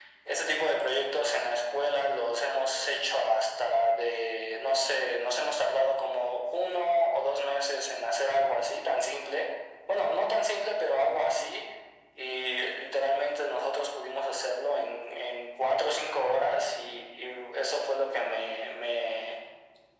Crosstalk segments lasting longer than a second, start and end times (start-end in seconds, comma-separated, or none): none